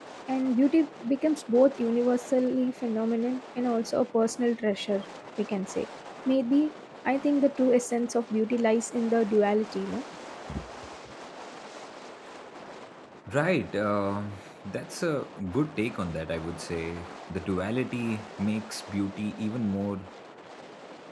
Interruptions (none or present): none